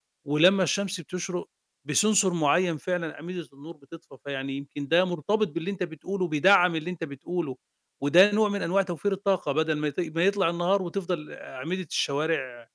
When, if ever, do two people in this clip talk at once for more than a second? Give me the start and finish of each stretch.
none

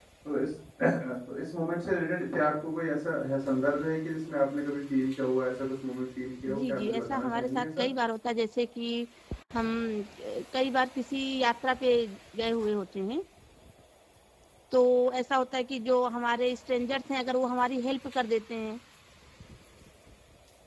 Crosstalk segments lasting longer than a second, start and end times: 6.6-7.8

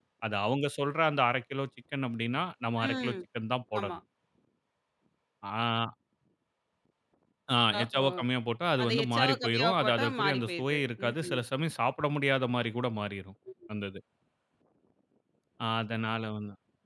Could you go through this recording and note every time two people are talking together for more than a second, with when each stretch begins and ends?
8.8-11.4

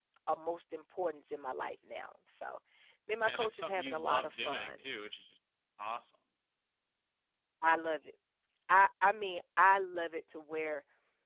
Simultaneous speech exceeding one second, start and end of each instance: 3.2-4.9

